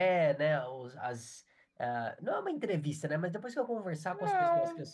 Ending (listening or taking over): listening